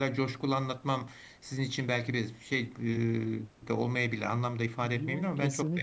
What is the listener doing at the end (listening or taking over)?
taking over